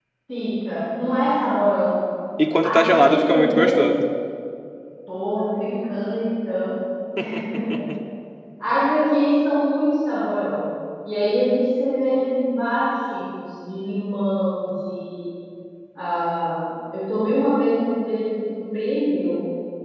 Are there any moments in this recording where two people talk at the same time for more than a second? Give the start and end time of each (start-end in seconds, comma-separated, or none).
2.6-3.8